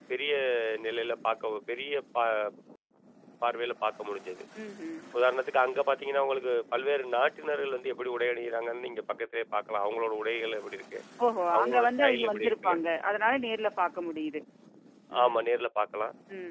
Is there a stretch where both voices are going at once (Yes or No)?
Yes